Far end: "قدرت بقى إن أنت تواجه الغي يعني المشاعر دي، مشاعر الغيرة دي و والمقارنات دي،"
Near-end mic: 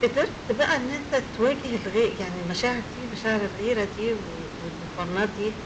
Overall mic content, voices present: echo only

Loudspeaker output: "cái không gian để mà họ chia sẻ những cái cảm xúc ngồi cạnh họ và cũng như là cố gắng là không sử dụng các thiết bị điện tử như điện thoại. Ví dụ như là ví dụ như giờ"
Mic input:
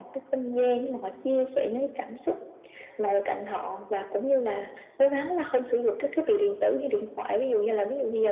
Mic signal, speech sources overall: echo only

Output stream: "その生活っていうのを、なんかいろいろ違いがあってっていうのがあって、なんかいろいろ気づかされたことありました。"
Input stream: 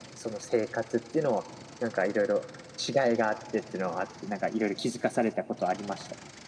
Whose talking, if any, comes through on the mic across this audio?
echo only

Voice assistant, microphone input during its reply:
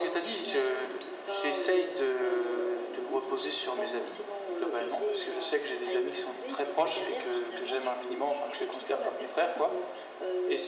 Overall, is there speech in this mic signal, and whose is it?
echo only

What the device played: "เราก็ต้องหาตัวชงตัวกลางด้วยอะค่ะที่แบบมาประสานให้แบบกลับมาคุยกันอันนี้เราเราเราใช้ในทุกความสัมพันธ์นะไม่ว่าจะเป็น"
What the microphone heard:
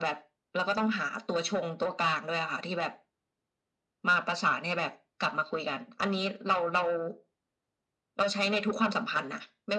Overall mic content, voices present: echo only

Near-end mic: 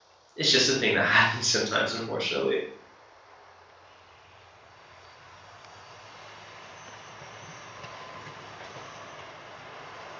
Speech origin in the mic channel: user only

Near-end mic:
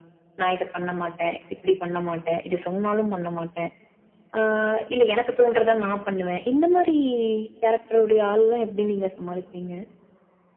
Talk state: echo only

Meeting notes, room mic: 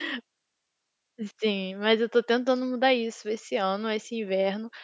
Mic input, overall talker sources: user only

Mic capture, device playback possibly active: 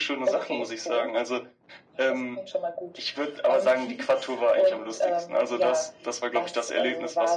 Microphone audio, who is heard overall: echo only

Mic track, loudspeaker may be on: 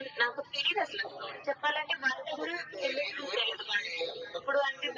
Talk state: echo only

